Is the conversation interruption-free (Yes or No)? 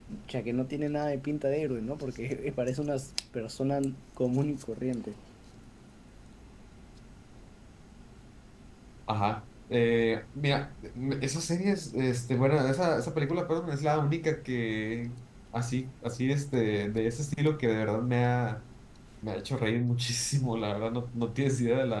Yes